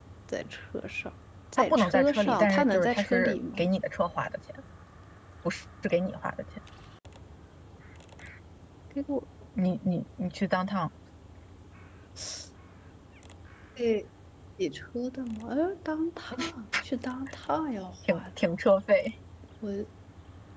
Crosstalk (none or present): present